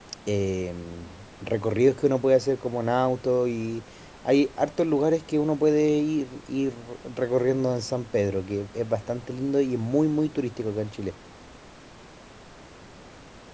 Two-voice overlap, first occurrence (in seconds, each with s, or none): none